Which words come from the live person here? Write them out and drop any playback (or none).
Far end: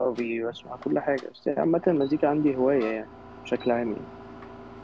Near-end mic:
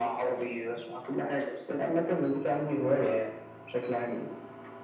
none